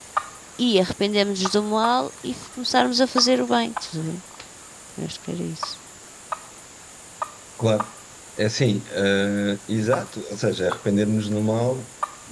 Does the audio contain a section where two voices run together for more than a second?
No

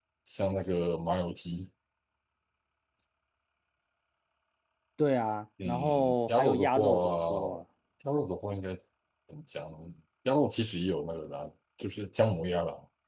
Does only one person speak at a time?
No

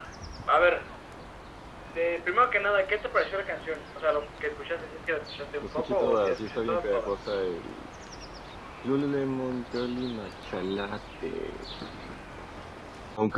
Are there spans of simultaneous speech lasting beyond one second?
Yes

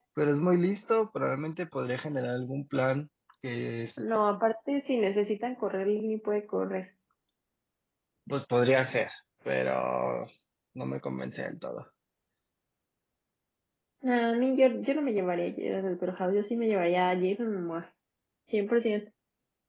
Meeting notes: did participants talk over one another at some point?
No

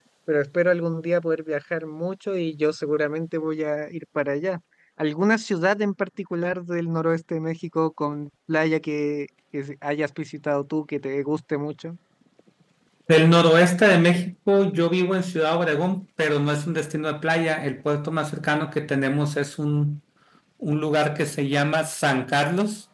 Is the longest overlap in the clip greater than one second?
No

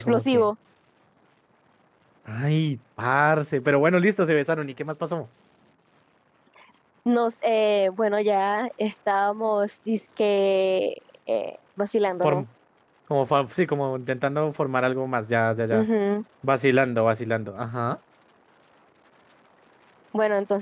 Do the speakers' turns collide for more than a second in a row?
No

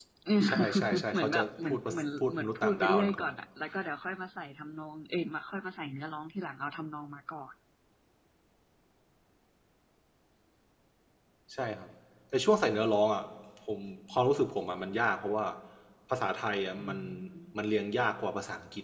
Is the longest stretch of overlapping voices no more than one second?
No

